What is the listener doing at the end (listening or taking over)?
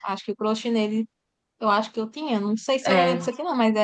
listening